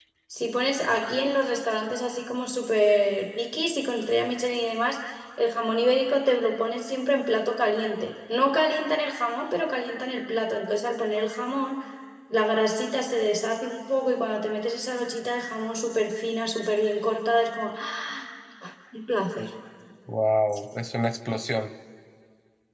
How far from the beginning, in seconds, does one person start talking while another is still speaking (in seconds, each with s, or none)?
none